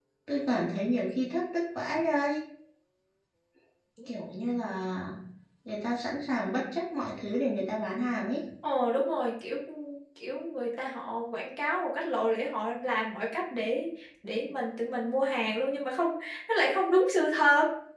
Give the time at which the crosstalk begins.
none

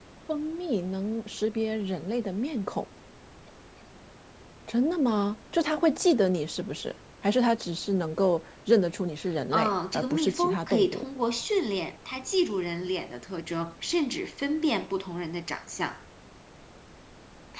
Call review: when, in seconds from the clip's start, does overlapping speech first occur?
9.5 s

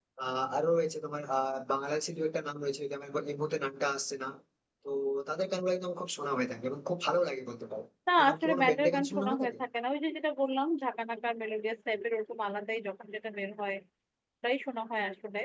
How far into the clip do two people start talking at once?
8.1 s

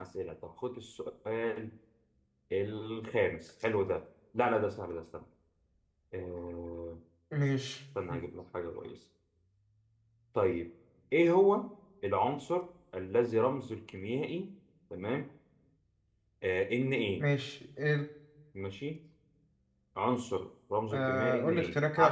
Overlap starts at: 20.9 s

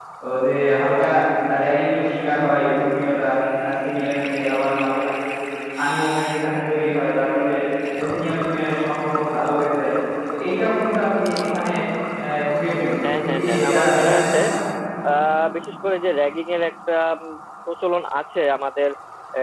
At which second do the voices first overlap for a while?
13.0 s

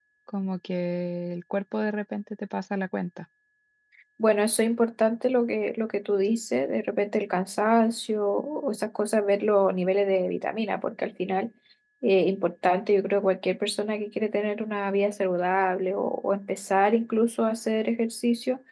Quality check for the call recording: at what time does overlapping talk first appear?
none

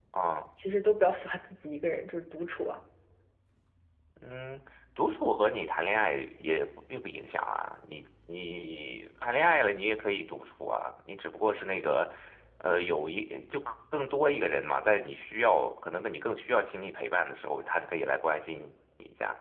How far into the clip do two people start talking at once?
none

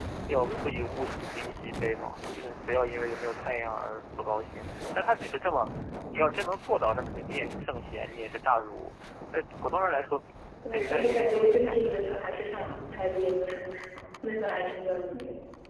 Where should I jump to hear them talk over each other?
10.7 s

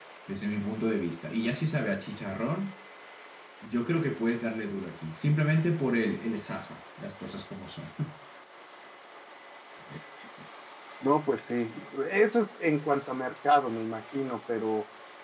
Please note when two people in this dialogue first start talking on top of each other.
none

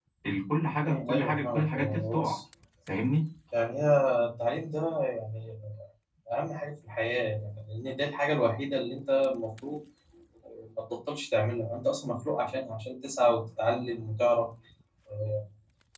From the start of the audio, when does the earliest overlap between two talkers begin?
0.8 s

